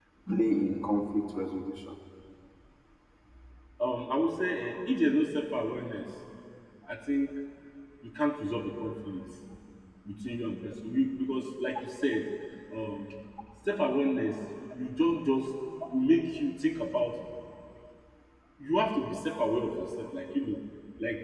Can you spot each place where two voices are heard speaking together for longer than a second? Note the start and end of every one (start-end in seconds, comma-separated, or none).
none